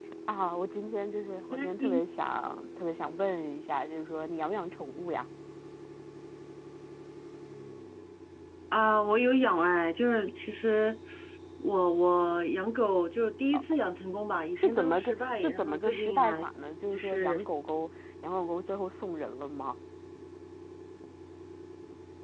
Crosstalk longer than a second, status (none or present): present